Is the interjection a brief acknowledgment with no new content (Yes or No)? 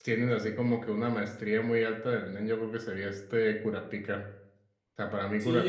No